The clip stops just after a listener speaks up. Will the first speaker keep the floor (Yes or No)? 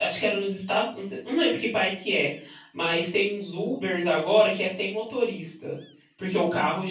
Yes